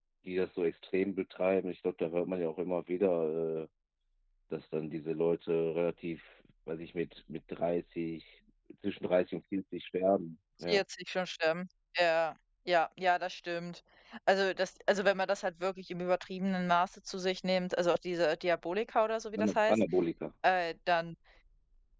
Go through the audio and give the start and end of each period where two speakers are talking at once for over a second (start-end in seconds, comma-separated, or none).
none